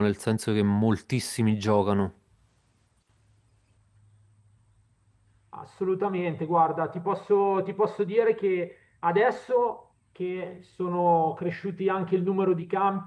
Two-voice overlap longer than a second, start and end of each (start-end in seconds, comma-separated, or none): none